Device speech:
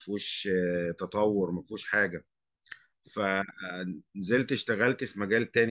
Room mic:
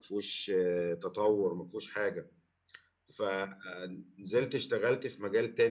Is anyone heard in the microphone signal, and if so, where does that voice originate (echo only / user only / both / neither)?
echo only